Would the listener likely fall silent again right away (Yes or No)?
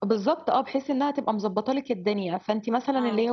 Yes